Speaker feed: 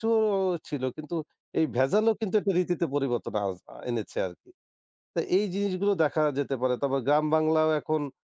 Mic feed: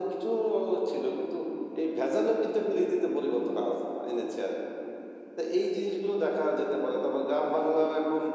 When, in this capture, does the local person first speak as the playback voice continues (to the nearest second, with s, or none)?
none